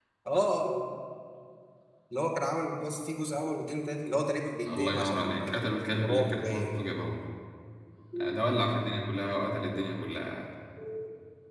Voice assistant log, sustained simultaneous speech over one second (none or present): present